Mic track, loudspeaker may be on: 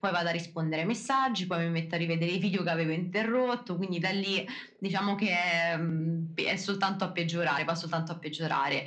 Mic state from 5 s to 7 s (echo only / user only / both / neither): echo only